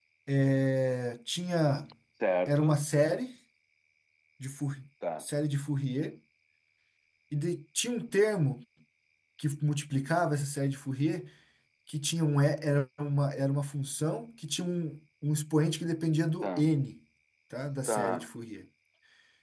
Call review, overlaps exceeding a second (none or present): none